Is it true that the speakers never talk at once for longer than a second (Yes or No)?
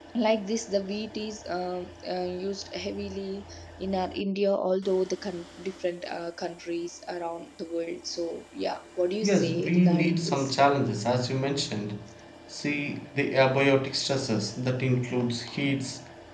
No